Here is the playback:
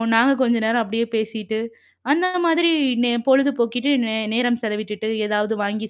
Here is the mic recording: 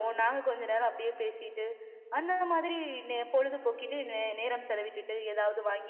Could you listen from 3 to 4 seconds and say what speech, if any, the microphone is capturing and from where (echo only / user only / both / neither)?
echo only